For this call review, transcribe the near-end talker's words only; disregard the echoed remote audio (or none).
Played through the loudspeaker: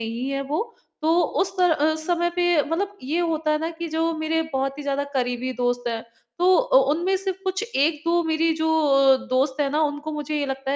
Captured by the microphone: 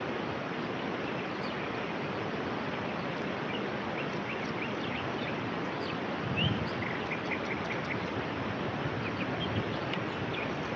none